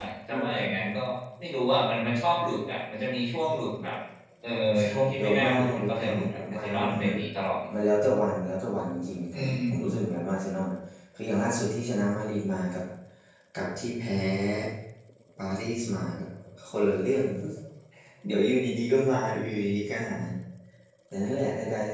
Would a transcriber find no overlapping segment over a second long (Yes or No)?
No